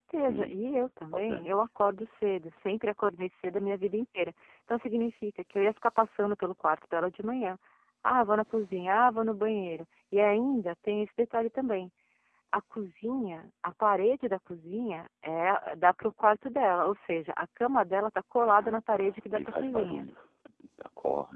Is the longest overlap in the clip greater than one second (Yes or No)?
Yes